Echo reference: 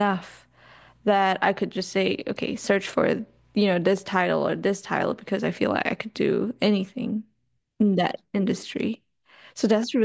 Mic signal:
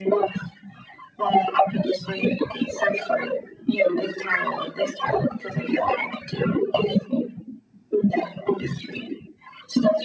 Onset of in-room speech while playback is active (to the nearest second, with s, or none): none